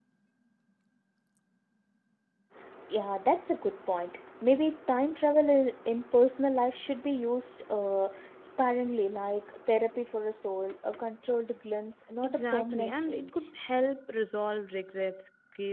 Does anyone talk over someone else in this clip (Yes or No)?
Yes